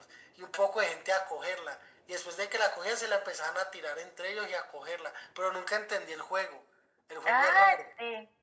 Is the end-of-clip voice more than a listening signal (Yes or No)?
Yes